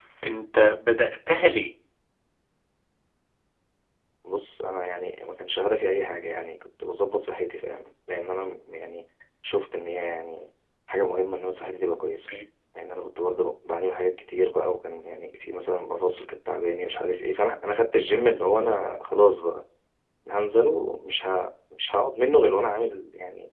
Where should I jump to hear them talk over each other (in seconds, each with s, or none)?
none